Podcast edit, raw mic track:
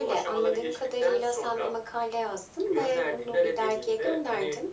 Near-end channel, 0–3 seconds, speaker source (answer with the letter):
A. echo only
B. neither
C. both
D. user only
A